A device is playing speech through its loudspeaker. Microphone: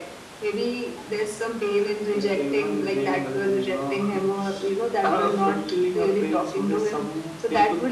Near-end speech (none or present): none